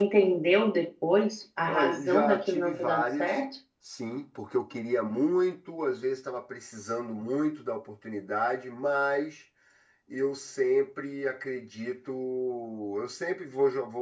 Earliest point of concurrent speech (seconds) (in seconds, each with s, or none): 1.6 s